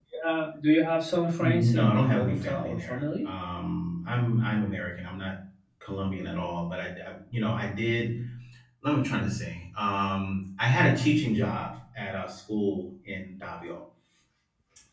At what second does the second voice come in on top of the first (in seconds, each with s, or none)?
1.4 s